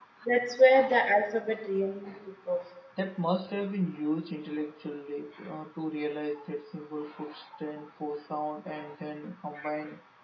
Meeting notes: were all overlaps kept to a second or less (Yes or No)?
Yes